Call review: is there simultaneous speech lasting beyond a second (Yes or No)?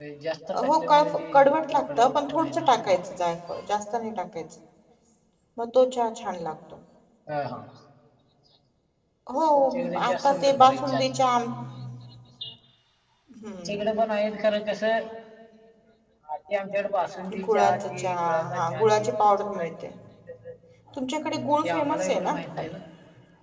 Yes